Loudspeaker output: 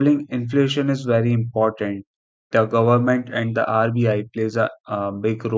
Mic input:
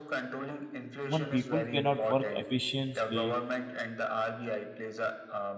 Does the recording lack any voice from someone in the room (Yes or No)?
No